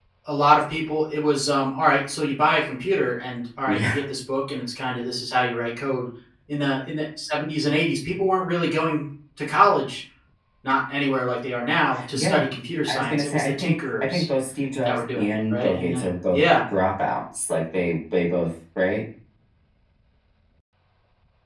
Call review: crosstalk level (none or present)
present